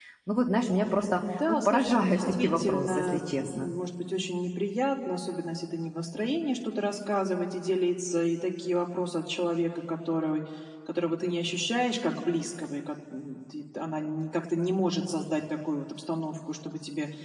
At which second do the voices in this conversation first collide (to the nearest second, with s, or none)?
1 s